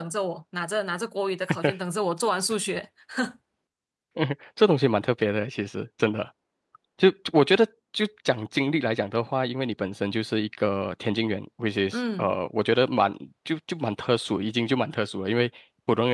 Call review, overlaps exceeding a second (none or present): none